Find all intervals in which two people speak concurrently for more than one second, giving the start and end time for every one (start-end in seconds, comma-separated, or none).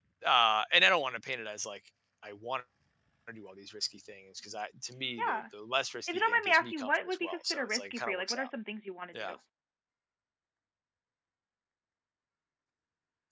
6.1-8.5